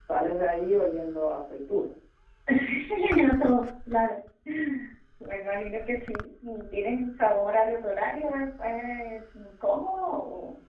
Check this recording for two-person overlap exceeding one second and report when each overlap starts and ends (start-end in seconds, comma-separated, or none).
none